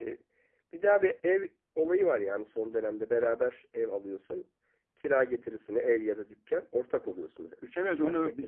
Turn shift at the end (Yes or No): Yes